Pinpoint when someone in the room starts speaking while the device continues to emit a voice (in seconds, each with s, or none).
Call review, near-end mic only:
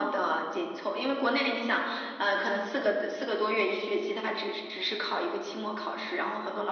none